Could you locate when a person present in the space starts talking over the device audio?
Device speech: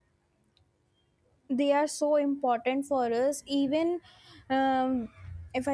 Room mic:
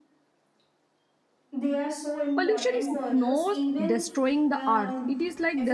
2.3 s

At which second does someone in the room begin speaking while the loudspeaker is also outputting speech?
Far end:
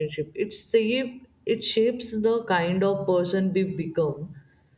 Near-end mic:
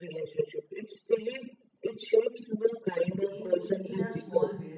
3.3 s

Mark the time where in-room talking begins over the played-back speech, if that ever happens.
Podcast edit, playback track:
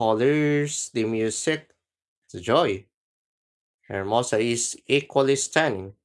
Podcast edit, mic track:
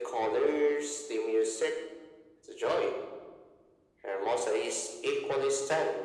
none

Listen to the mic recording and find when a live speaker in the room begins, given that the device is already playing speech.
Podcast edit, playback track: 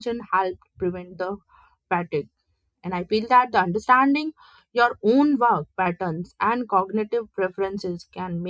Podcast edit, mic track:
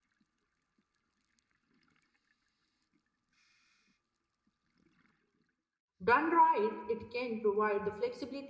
6.0 s

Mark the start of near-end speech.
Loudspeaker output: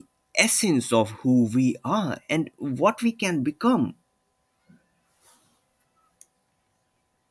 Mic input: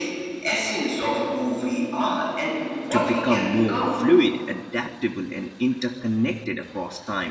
2.9 s

